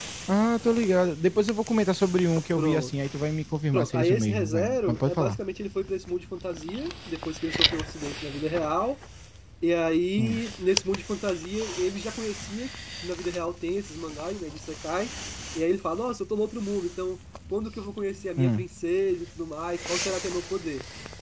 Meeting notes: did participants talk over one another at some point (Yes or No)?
Yes